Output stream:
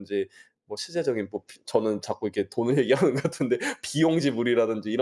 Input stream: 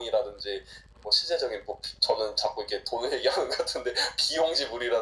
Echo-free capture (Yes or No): No